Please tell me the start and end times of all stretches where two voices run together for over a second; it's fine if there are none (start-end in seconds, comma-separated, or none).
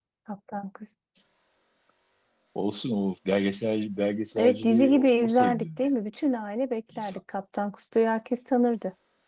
4.4-5.8